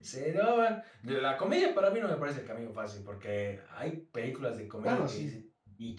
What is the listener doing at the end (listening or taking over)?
listening